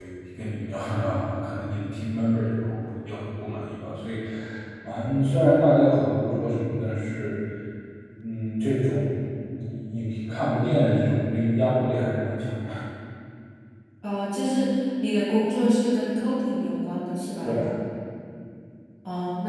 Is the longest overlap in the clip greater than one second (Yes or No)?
No